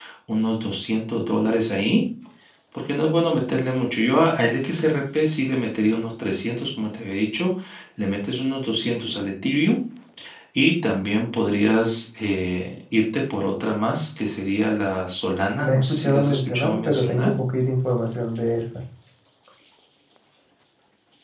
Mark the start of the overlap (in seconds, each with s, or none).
15.6 s